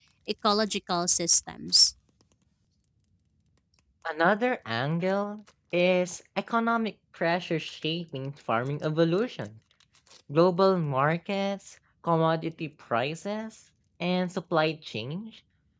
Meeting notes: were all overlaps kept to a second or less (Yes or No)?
Yes